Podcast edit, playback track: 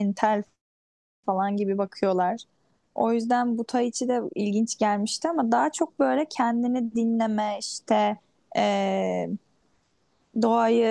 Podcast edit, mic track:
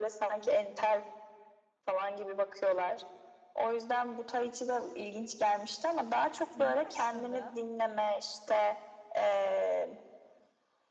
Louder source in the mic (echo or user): echo